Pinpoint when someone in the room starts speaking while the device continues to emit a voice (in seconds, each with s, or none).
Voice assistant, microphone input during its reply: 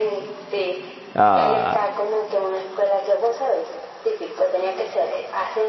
1.2 s